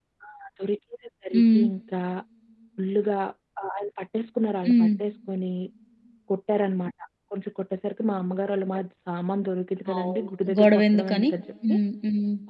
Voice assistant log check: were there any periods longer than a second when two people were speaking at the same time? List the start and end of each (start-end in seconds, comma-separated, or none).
10.0-11.3